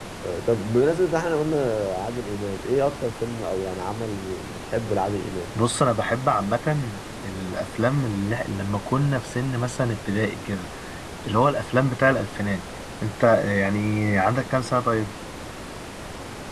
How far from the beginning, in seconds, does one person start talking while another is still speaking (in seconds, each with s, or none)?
none